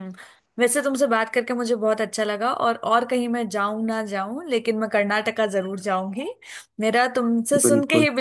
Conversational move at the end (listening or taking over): listening